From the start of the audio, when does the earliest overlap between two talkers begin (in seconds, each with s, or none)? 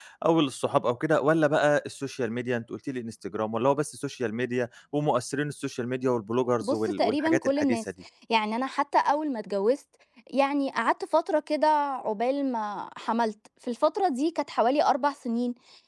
6.6 s